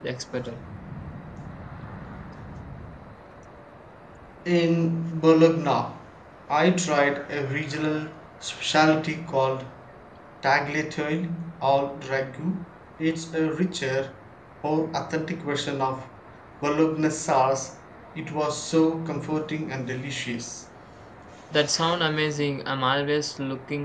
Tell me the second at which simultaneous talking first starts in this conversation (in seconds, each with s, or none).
none